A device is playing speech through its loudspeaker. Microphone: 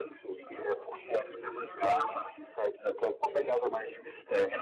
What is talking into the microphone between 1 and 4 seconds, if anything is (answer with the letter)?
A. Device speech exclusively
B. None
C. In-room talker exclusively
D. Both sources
D